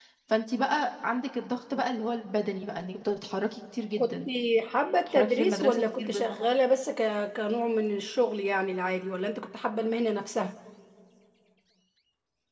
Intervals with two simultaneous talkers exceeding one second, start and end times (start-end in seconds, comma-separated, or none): 5.1-6.5